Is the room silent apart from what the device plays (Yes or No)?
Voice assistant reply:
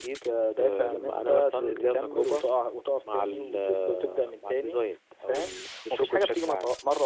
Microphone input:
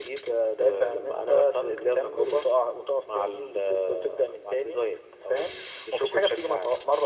Yes